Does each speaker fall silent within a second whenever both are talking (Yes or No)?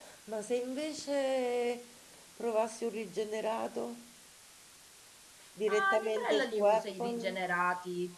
No